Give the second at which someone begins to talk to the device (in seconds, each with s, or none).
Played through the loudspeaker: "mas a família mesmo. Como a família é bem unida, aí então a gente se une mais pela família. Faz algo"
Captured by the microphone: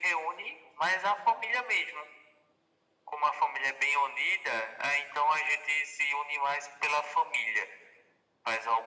none